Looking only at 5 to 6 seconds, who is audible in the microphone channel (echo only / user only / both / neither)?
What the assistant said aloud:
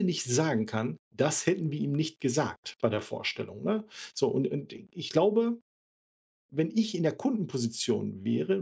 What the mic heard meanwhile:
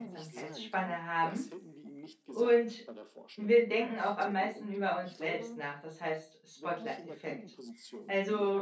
both